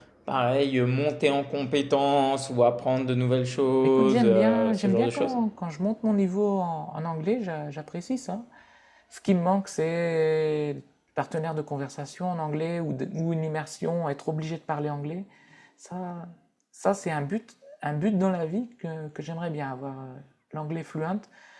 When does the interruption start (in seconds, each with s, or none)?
3.8 s